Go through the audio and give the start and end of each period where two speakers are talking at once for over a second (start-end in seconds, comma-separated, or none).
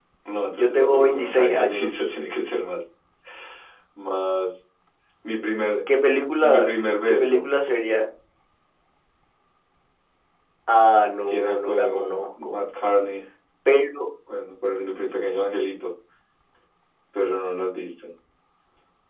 0.5-2.1, 11.3-12.6